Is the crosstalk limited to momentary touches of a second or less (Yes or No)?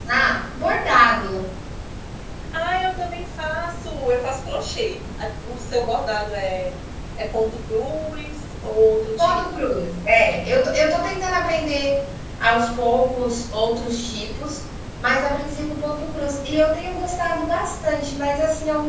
Yes